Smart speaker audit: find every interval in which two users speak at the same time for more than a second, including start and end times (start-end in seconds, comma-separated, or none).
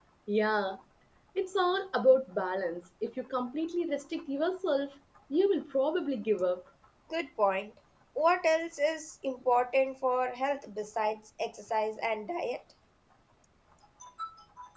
none